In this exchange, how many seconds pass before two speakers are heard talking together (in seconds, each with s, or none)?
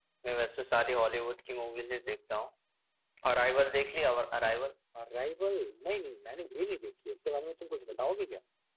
none